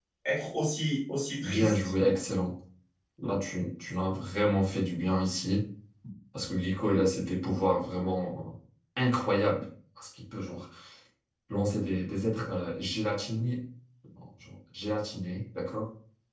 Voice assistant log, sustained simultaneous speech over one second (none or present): none